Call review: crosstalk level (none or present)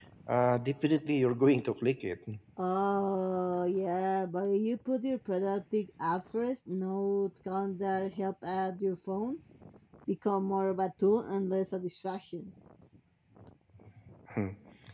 none